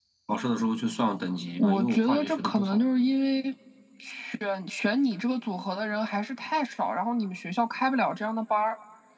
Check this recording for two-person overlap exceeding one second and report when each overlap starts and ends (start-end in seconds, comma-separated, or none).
1.6-2.8